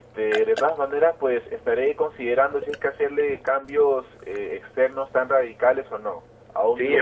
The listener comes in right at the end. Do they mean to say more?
Yes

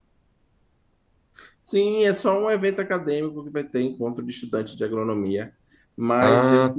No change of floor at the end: Yes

